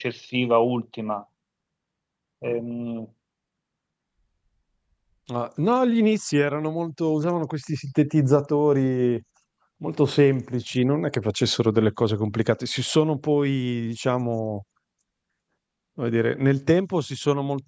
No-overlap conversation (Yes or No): Yes